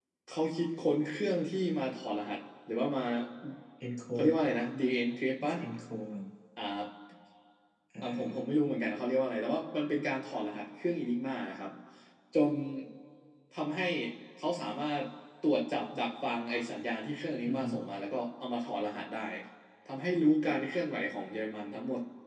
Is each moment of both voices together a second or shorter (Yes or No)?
Yes